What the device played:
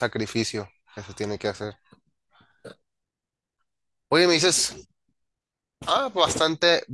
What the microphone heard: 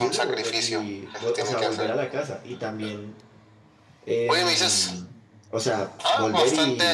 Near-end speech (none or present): present